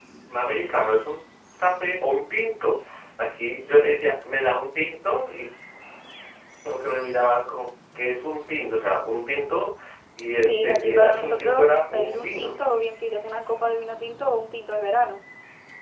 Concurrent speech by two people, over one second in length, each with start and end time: 10.4-12.6

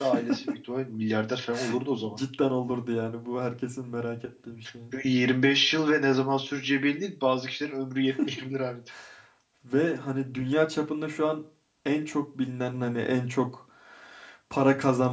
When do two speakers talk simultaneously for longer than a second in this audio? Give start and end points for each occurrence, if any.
none

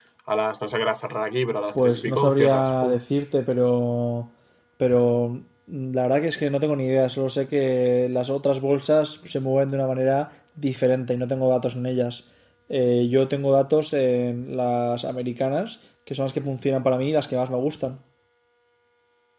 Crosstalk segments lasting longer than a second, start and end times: 1.8-3.0

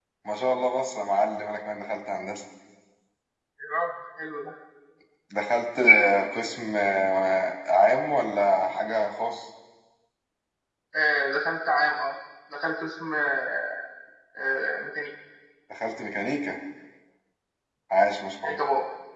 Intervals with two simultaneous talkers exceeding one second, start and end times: none

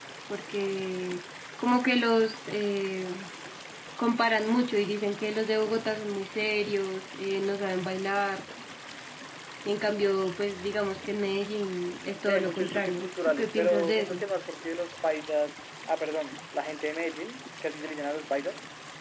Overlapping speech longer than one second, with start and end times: 12.2-14.2

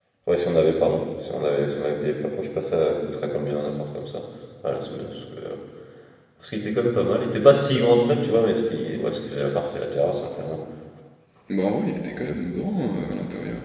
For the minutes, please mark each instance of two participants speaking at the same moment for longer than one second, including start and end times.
none

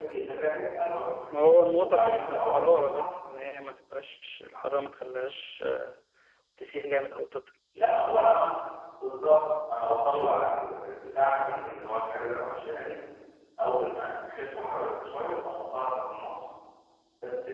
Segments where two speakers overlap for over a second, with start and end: 1.8-3.0

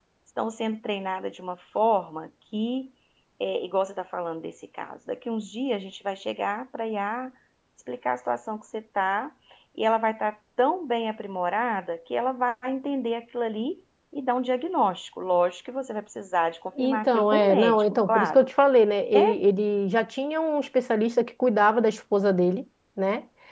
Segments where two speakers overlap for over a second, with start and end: 16.8-18.5

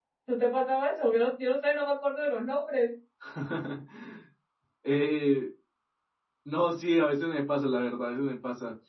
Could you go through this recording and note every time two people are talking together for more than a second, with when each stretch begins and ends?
none

